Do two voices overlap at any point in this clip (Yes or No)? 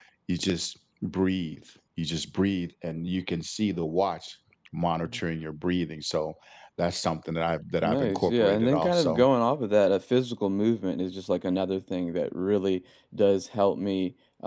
Yes